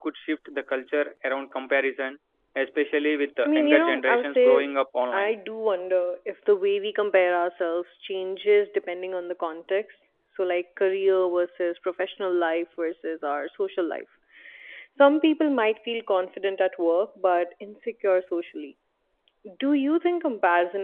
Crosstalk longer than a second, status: present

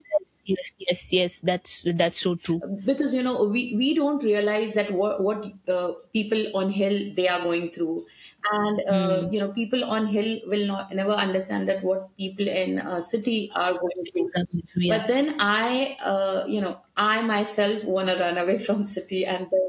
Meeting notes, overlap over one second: none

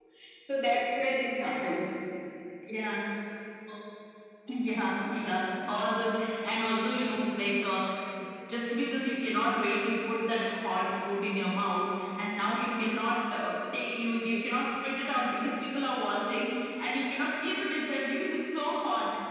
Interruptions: none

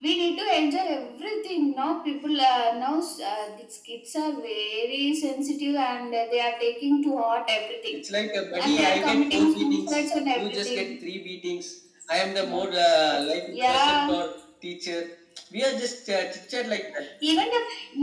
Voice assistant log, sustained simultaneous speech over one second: present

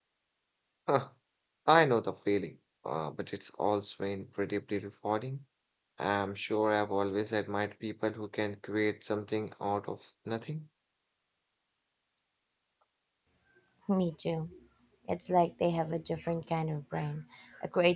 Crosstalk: none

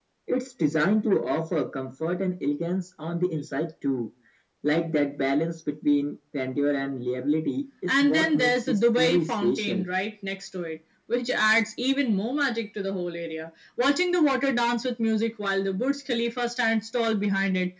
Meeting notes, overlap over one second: present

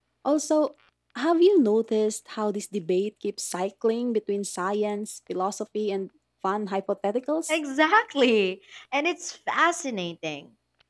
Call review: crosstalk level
none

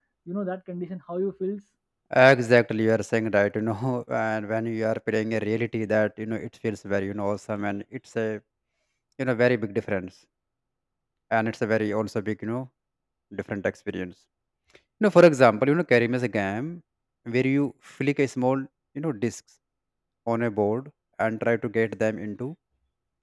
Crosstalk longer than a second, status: none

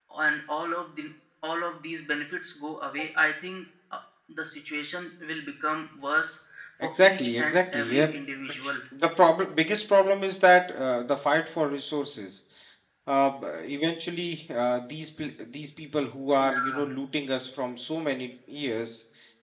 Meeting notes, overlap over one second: present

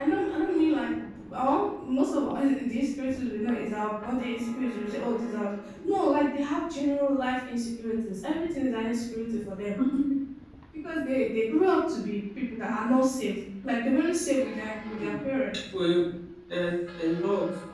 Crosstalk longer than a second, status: none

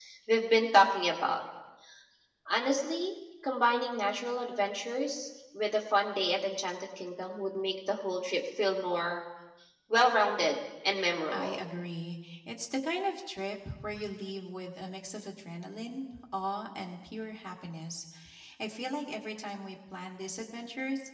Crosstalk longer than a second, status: none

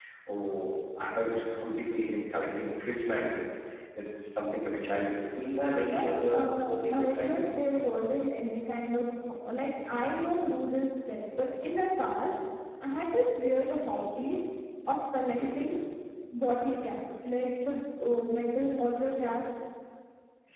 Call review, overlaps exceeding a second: present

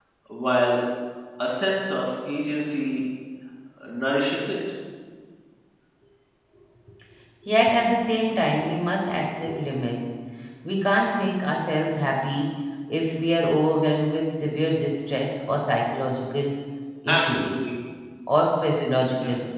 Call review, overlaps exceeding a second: none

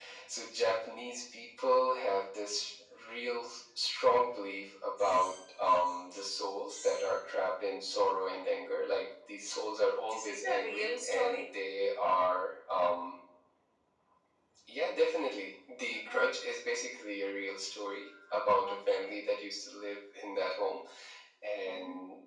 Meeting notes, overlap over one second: present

